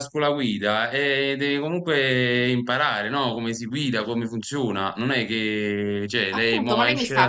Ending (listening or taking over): taking over